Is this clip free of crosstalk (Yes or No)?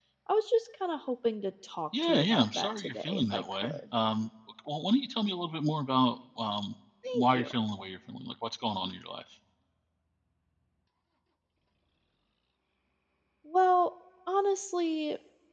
No